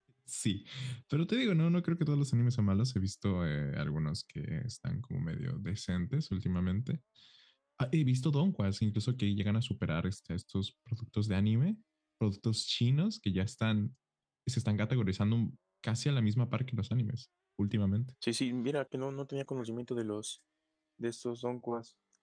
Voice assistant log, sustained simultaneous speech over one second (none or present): none